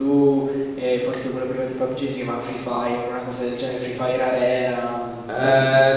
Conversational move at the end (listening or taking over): taking over